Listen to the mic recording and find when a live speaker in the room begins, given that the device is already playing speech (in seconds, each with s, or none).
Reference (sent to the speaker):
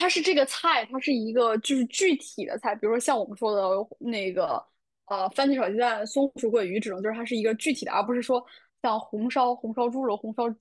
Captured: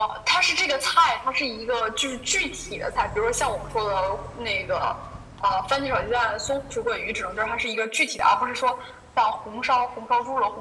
none